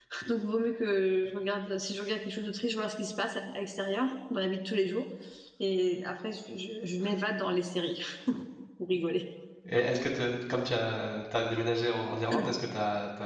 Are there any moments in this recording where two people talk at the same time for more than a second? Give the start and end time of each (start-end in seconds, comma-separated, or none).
none